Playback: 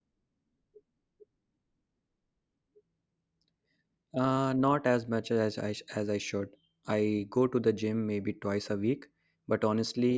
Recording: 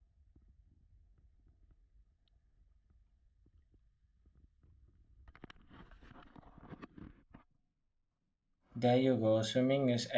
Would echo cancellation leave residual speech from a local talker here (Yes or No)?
Yes